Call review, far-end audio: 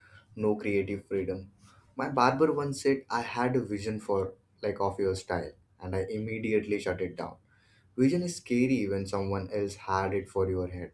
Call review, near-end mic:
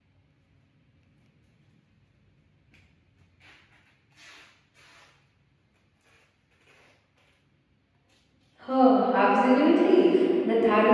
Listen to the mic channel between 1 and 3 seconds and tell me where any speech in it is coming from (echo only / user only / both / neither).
neither